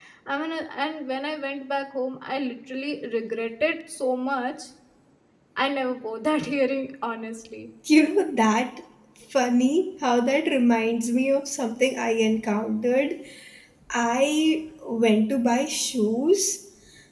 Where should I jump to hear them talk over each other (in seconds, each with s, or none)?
none